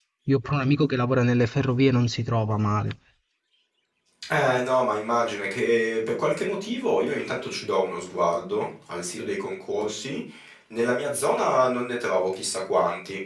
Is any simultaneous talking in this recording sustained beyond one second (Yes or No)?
No